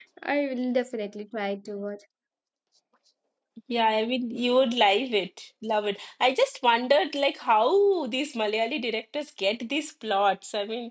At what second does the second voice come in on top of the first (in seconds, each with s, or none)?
none